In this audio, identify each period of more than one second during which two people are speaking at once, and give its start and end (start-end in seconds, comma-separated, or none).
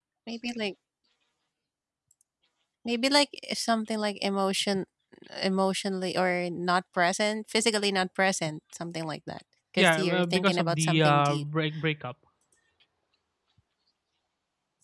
9.8-11.4